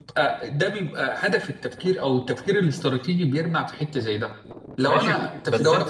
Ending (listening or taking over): taking over